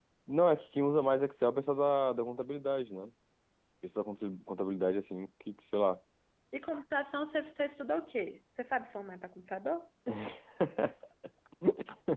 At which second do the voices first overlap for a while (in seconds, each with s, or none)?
none